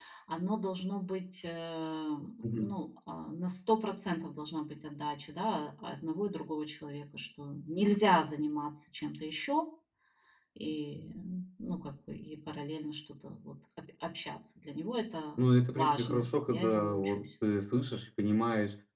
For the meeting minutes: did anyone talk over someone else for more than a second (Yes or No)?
Yes